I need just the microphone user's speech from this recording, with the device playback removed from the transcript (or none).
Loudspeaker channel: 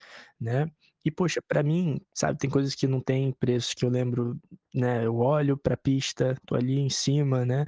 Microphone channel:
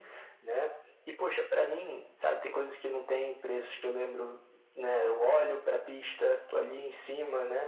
none